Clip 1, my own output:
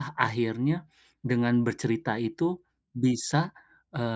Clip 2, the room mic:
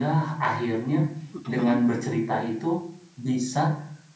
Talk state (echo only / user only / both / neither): both